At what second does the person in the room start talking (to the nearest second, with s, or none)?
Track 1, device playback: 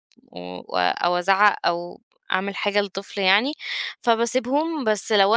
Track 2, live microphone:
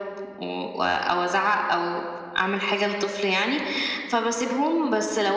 none